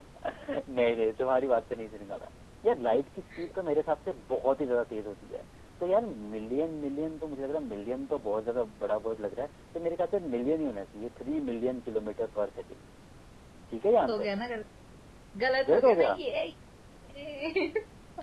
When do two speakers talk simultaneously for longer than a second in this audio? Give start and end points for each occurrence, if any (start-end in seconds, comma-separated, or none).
none